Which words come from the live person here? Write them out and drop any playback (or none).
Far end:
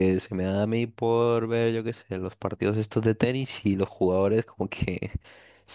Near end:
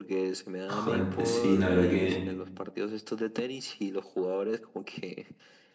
Joder, pues sí, la verdad que...